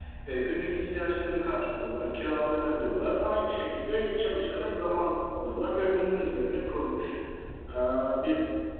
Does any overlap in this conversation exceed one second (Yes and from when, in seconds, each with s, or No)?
No